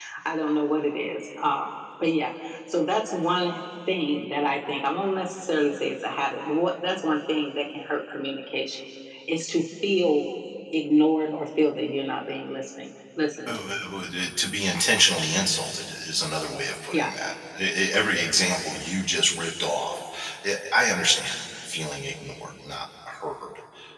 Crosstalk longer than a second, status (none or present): none